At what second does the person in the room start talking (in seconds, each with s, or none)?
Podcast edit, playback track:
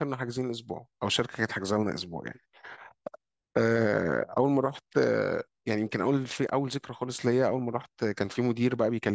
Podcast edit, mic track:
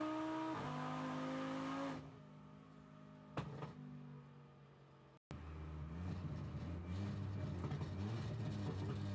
none